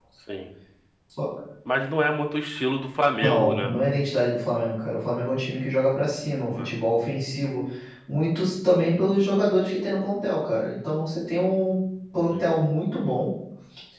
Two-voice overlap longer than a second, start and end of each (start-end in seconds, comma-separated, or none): none